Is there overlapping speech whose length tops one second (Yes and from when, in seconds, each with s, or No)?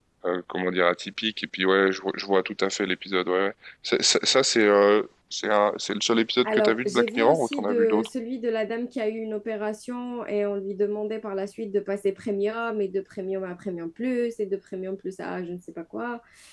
Yes, from 6.4 s